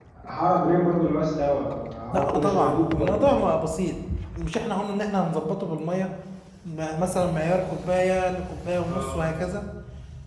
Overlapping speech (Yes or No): Yes